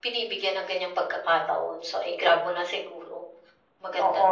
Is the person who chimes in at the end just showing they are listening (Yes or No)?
No